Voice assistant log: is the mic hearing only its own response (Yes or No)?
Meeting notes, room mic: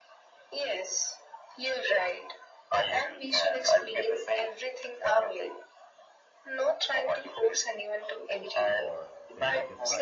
No